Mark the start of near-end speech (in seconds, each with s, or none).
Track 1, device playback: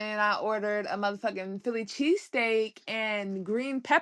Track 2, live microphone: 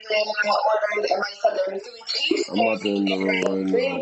2.5 s